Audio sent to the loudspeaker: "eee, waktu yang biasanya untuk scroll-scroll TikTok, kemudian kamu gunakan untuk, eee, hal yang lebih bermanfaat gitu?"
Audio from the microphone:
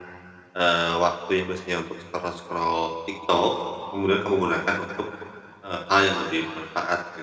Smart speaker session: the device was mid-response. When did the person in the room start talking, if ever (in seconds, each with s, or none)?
none